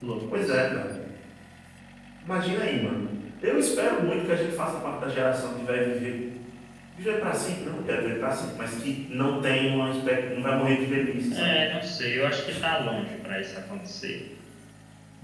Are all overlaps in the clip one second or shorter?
Yes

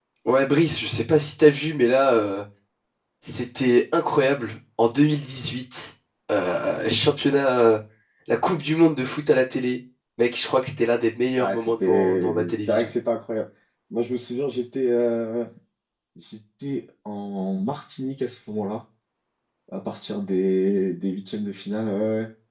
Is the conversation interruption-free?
No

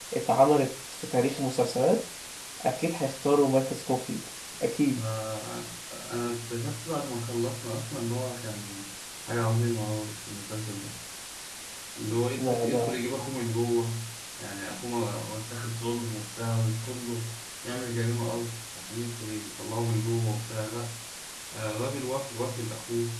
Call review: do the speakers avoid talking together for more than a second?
Yes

